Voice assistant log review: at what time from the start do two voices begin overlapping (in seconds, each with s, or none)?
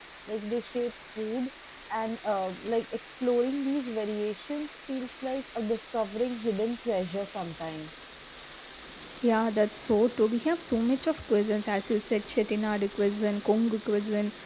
none